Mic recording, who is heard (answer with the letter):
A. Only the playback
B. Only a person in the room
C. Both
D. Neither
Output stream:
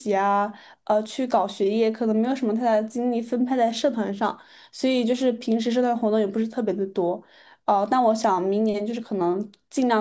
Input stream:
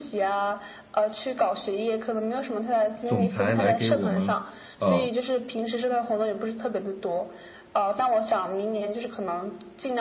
C